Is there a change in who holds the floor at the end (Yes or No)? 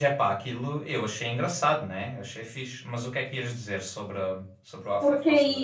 Yes